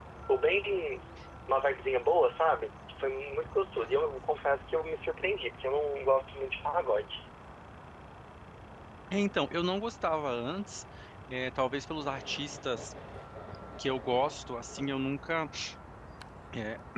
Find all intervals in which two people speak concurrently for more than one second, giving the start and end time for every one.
none

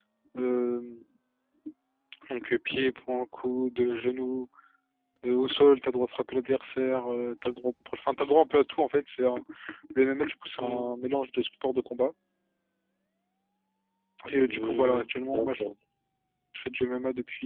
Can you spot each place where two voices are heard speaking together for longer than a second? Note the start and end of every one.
14.4-15.6

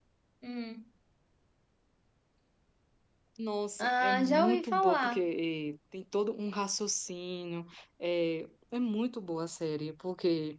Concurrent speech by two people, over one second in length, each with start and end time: 3.8-5.2

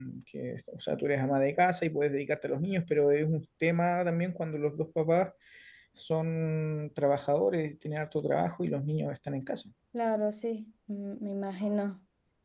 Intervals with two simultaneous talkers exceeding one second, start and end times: none

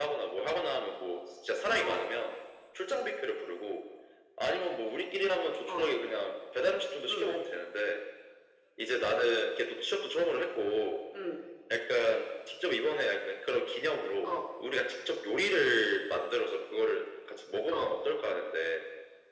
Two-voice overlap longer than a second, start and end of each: none

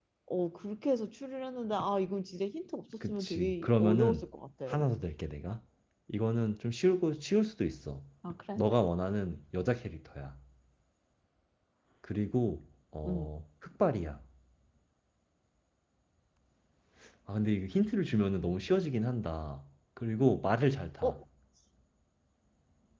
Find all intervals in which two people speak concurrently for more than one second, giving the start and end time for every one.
3.0-4.3

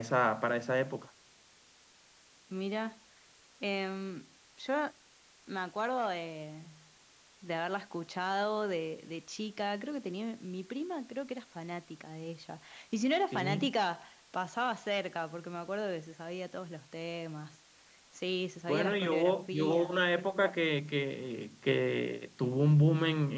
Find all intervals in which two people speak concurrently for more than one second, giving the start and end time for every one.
18.7-19.9

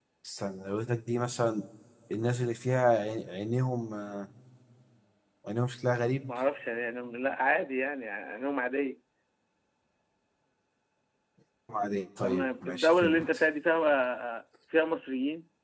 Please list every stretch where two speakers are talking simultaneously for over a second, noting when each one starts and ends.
12.2-13.4

